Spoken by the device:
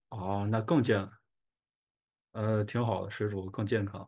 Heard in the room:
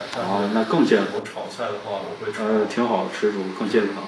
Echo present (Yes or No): Yes